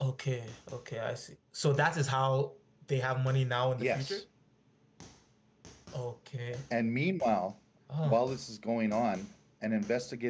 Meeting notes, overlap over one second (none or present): none